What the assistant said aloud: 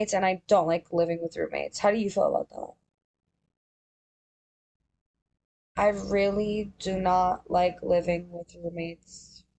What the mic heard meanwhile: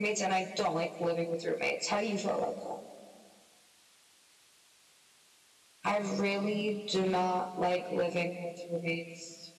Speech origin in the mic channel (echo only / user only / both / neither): echo only